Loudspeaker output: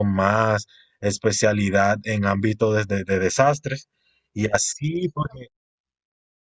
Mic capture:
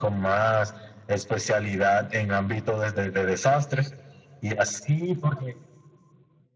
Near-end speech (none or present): none